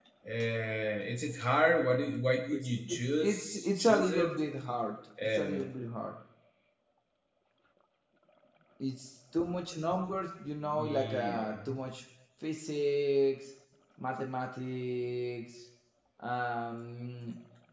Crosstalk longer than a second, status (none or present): present